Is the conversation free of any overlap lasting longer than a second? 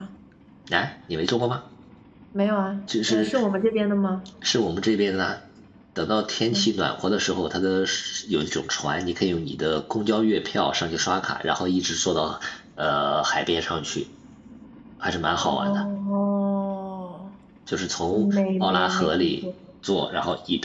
No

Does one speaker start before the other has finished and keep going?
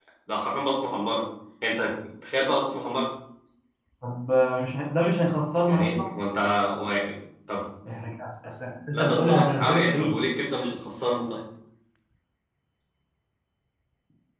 Yes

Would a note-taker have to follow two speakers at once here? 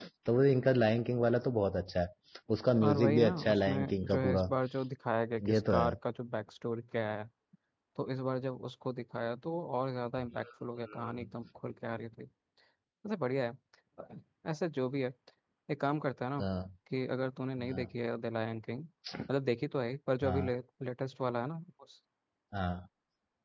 Yes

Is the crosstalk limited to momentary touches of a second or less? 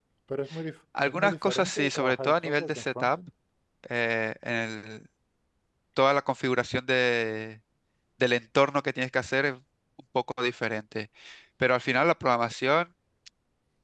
No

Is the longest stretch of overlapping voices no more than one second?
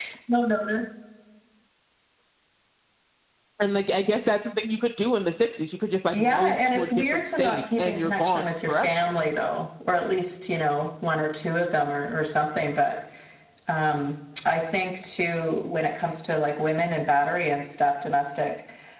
No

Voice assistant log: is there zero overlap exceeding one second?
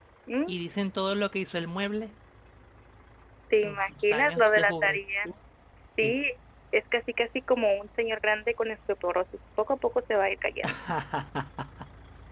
No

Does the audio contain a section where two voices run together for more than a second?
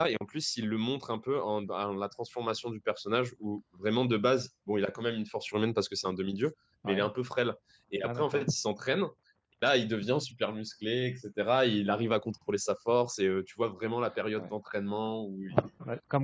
No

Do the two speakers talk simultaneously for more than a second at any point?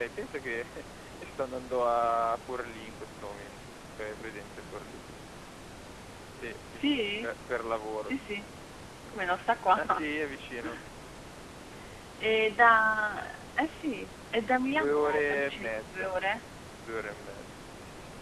Yes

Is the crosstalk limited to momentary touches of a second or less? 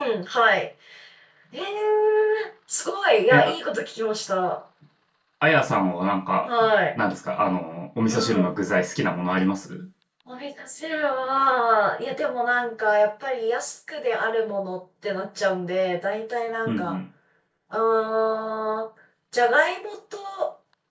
Yes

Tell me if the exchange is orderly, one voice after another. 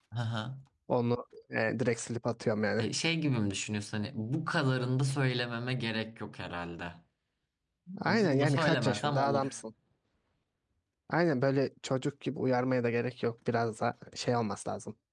No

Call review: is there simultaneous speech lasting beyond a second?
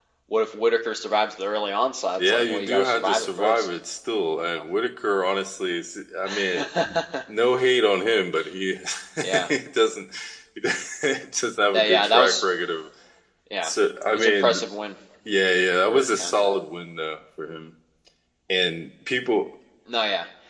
Yes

